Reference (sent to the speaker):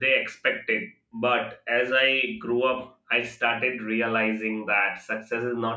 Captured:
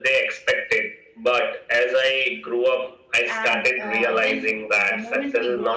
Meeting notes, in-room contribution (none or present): present